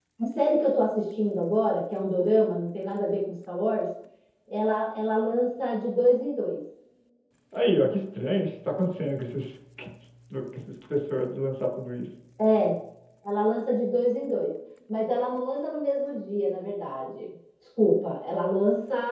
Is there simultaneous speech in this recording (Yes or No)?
No